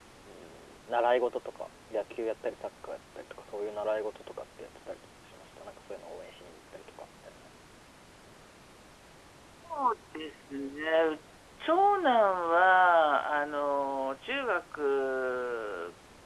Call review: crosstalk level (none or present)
none